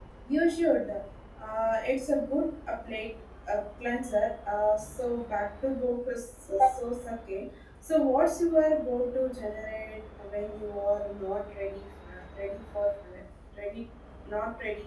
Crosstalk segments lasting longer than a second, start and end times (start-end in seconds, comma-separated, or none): none